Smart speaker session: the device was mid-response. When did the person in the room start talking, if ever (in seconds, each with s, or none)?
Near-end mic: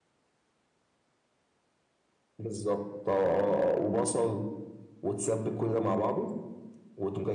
none